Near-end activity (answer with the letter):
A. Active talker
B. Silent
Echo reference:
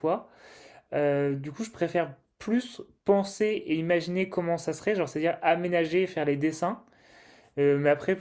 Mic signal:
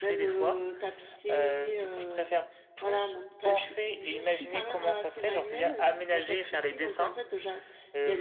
A